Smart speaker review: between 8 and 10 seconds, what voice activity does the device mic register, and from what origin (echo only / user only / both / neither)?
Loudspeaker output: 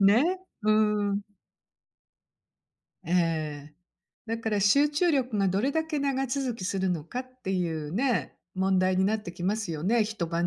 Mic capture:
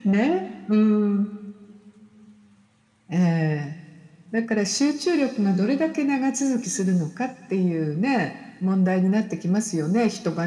echo only